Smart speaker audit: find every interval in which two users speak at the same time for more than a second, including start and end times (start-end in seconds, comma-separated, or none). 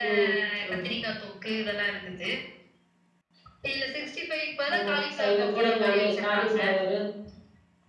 4.7-6.6